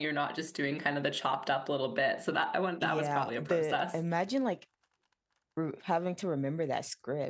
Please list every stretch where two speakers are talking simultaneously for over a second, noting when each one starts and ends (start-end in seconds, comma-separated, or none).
2.8-4.0